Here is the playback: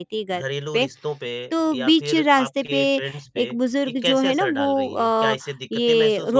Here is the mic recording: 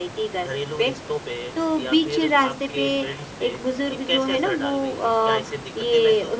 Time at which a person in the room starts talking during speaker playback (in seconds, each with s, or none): none